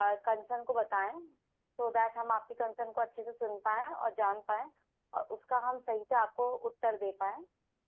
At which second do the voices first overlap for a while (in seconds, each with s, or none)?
none